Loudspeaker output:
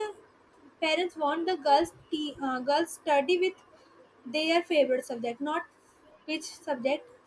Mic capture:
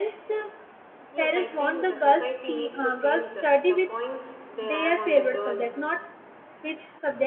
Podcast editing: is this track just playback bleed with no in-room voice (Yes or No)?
No